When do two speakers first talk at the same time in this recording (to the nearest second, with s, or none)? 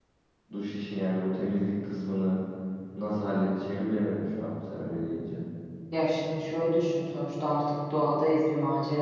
none